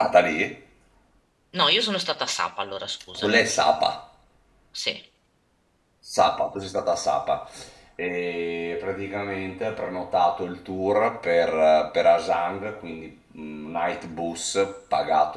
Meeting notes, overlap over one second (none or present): none